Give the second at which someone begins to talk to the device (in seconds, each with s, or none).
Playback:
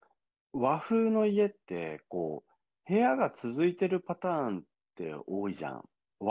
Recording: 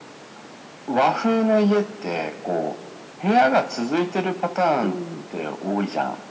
4.8 s